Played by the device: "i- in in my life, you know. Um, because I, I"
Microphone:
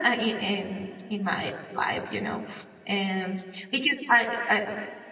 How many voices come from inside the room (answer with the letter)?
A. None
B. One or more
A